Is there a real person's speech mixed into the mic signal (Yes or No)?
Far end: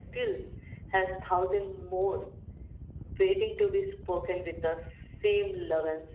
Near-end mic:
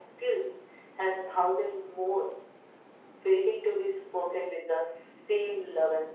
No